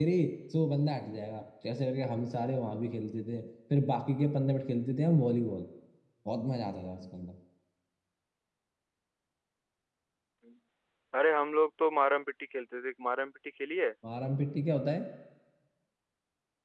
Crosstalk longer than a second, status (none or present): none